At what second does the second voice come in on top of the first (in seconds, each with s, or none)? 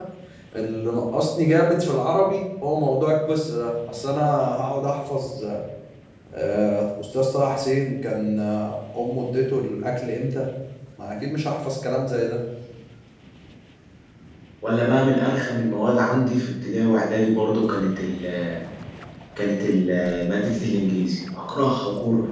none